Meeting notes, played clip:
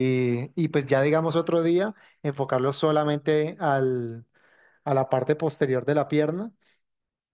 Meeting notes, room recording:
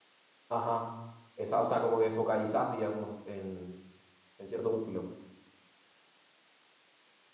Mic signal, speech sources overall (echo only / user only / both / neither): user only